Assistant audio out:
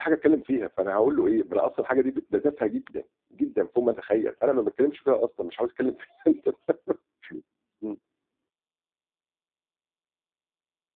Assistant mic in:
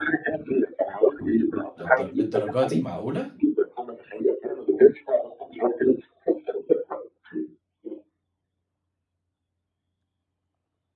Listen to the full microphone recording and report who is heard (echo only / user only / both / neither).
both